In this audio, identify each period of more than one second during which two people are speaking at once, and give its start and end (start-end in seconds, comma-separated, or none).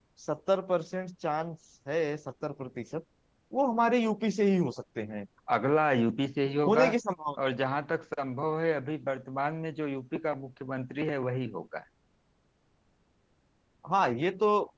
none